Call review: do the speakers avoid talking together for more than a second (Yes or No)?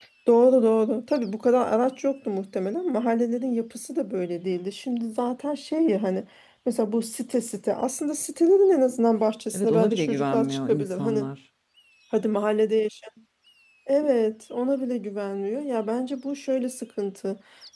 No